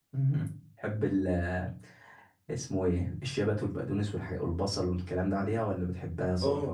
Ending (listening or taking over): listening